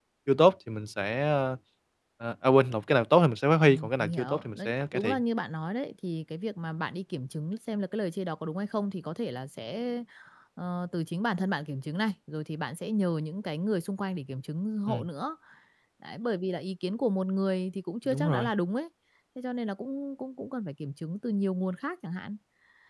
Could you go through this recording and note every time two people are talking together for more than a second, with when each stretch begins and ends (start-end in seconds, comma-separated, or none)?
3.6-5.2